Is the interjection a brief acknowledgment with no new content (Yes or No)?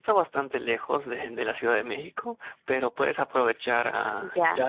Yes